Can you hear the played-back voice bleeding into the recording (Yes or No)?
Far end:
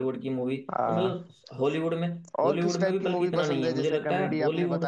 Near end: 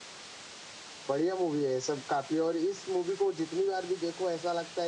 No